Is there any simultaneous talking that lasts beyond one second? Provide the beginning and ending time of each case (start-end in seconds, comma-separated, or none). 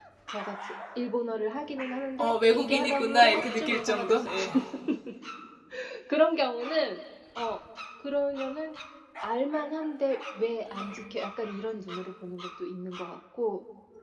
2.2-4.4